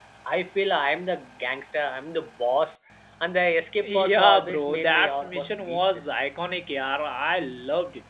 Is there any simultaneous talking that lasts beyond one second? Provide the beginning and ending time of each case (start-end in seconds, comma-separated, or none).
3.8-6.2